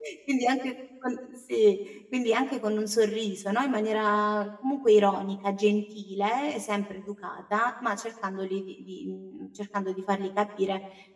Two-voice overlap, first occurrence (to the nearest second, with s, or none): none